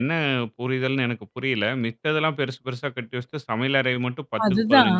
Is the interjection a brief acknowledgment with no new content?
Yes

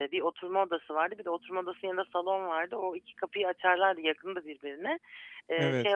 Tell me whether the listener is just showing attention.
Yes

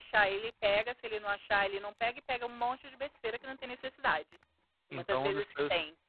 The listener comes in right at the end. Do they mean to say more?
Yes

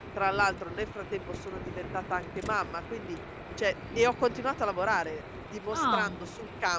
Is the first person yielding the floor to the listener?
No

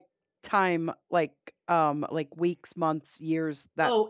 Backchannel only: No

